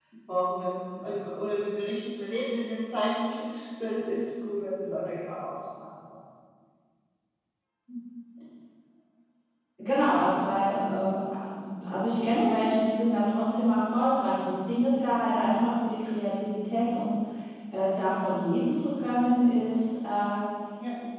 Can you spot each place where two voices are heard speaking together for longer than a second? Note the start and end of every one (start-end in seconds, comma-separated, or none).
none